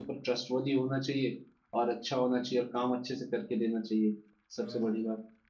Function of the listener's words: taking over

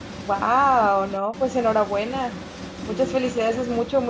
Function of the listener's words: listening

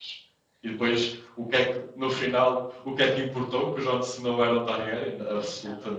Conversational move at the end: taking over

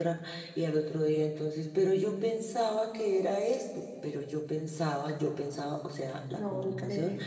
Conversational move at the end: listening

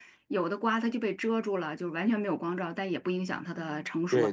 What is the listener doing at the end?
taking over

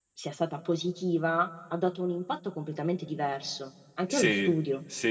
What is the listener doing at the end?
taking over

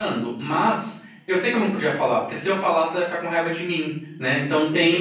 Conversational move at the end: listening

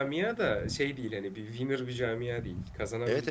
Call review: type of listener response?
taking over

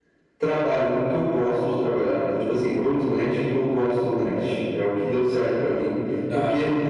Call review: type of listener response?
listening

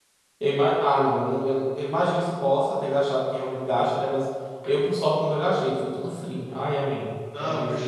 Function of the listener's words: taking over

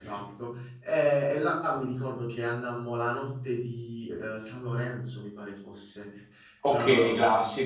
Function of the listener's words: listening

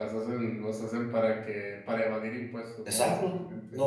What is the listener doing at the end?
taking over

